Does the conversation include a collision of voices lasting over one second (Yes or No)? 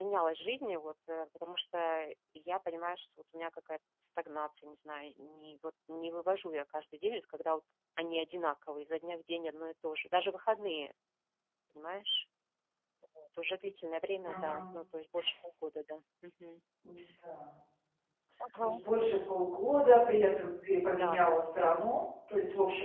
No